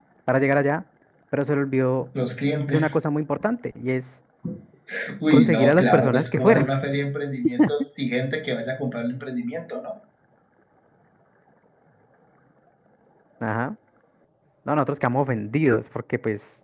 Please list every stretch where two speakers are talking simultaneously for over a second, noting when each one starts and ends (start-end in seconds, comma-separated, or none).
5.3-6.7